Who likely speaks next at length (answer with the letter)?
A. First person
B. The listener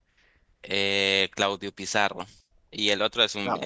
A